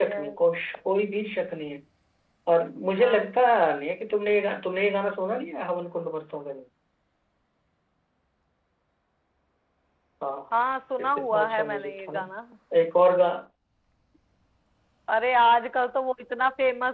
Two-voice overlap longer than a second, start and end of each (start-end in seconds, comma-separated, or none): 11.0-12.2